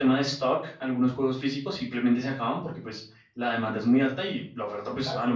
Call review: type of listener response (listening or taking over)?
listening